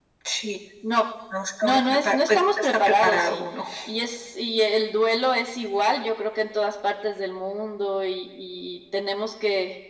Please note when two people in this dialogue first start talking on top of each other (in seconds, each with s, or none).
1.6 s